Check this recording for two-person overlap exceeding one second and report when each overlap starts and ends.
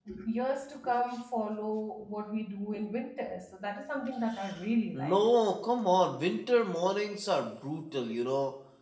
none

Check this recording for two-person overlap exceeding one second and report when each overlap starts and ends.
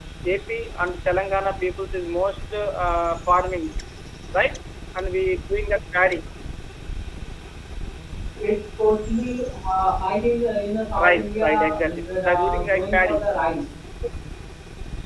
11.0-13.2

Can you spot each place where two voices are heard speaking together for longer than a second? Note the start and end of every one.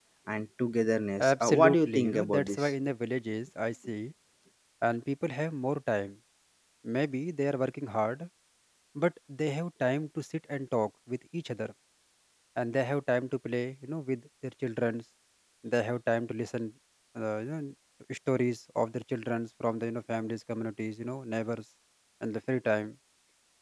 1.3-2.7

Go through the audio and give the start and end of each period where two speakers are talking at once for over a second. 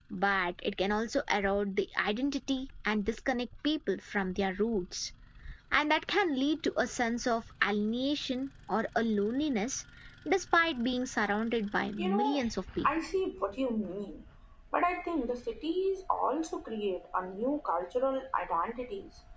none

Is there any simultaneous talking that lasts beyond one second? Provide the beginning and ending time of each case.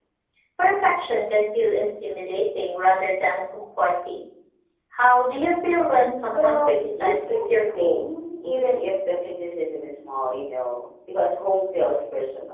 6.3-8.1

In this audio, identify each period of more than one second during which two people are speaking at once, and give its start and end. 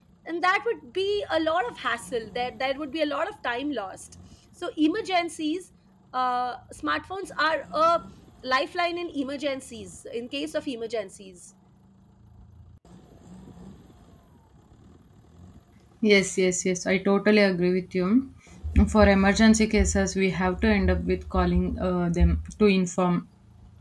none

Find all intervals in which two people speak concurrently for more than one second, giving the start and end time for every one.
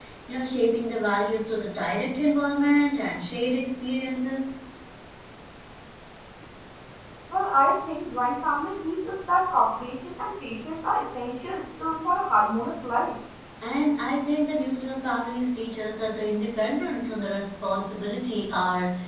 none

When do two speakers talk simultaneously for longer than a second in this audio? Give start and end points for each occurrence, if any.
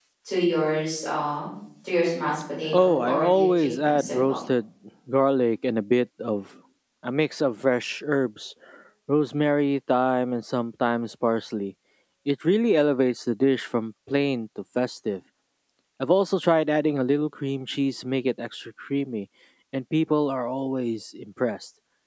2.7-4.3

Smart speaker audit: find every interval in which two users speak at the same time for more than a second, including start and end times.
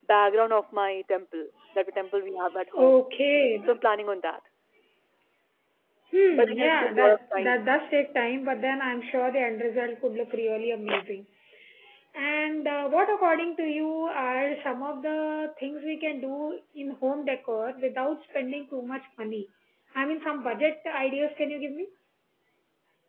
6.3-7.7

